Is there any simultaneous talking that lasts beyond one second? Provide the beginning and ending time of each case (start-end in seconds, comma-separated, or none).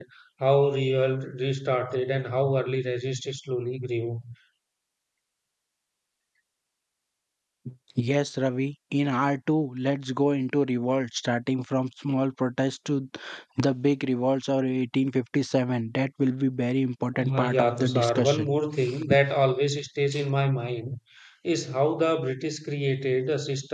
17.2-18.5